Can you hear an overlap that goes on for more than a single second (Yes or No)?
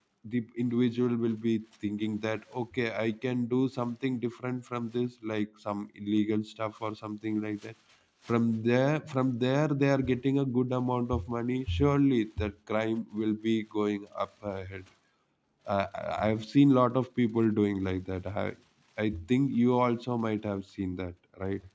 No